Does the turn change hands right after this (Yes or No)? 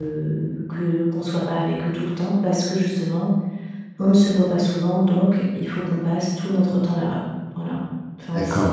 Yes